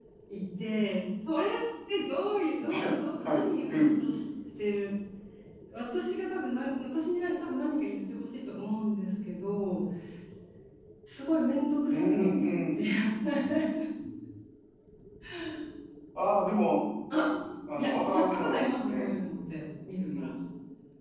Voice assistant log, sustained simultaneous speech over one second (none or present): present